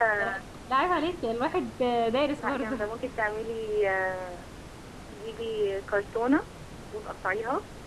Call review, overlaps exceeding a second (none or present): none